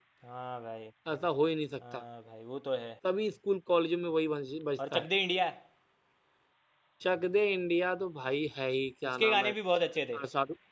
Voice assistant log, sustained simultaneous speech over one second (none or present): none